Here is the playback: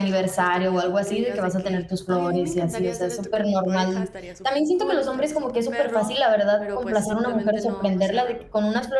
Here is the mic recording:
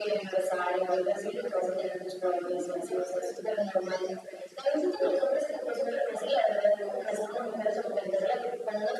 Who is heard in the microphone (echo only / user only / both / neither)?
echo only